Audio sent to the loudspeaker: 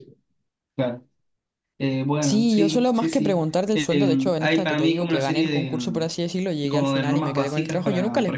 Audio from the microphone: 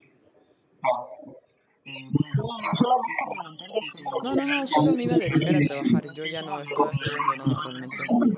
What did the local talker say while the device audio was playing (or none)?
No, no, no, solo me iba a dedicar a trabajar. Yo ya no estoy estudiando nada realmente.